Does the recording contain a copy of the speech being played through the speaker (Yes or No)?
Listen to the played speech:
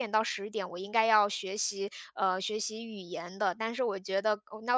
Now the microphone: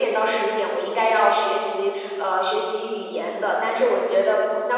Yes